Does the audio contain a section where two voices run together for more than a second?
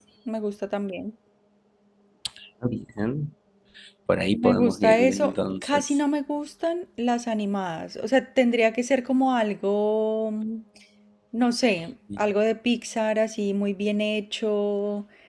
Yes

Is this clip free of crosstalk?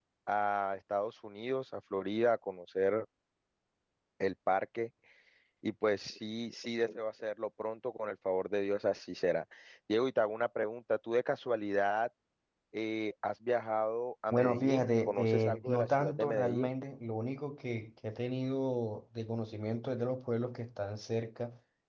No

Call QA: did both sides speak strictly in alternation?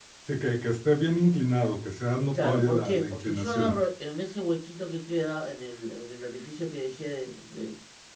No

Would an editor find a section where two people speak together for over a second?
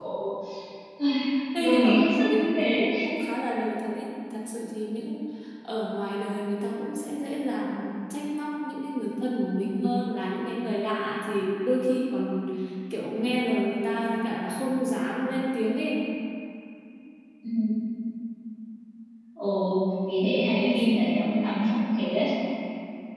Yes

